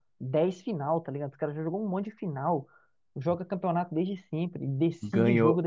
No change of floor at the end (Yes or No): No